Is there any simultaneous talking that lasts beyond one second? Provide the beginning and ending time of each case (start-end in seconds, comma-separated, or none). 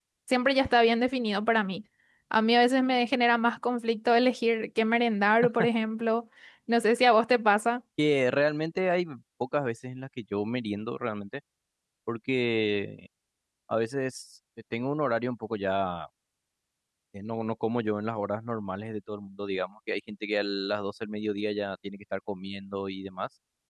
none